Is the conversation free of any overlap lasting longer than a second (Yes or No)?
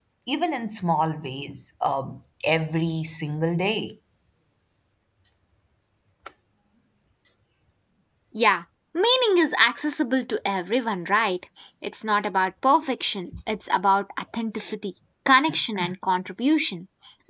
Yes